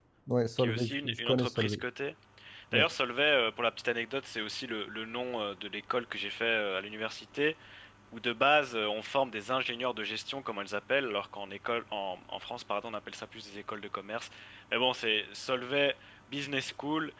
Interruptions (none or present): present